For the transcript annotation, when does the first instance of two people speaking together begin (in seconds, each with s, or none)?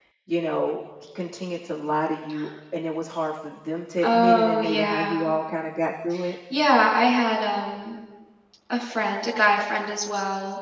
4.0 s